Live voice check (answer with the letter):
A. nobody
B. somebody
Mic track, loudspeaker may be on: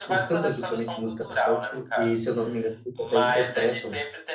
B